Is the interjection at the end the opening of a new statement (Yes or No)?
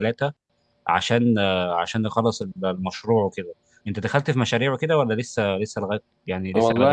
Yes